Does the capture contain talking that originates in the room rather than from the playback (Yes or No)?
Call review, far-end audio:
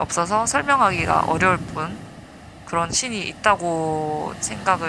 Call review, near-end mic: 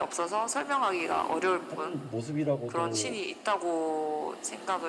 Yes